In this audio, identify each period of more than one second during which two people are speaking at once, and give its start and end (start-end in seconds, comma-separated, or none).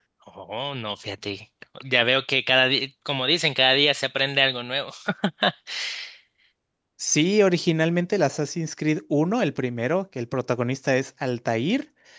none